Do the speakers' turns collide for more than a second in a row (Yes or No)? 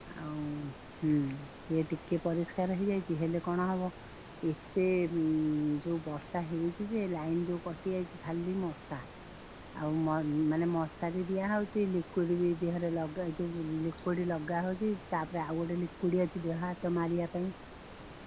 No